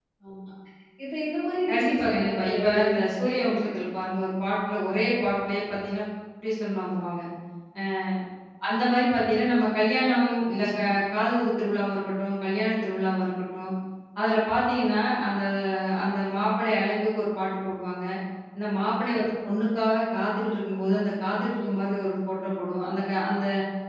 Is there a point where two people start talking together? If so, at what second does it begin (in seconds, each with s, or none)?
1.7 s